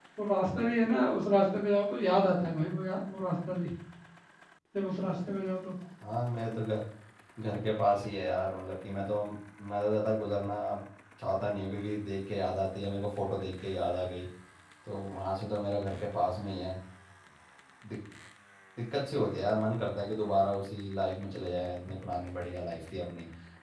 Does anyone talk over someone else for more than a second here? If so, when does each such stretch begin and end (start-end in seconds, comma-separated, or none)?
none